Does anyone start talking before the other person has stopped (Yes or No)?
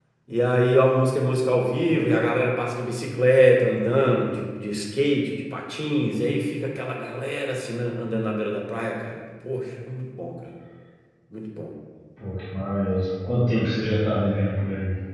No